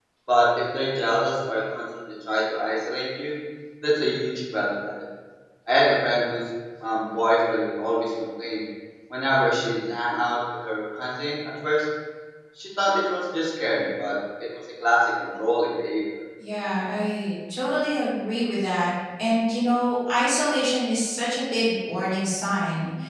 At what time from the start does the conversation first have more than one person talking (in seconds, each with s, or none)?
none